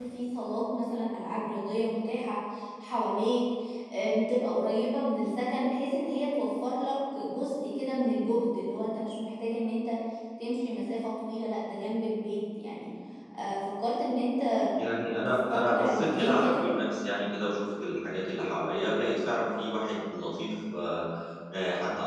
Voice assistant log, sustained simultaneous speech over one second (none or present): present